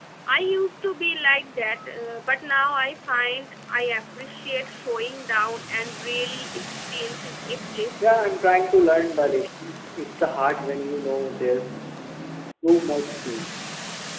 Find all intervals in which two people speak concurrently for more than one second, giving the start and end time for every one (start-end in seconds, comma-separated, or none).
none